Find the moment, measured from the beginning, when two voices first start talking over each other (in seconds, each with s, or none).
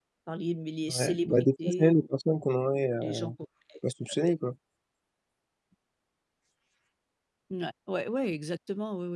0.9 s